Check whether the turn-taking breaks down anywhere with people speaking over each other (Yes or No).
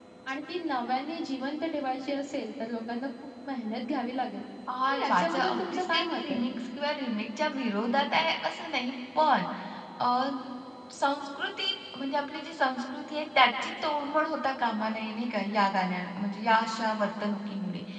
Yes